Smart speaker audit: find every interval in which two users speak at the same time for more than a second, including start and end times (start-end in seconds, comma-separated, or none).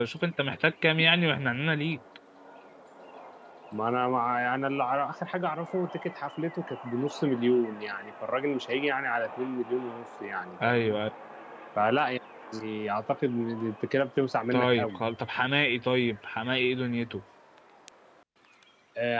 none